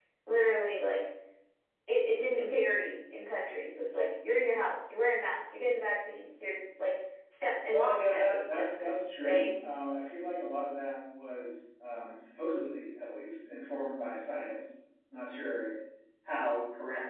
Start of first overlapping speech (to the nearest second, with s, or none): 8 s